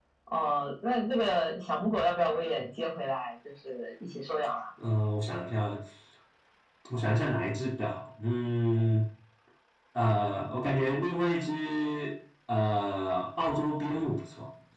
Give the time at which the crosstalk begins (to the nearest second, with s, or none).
none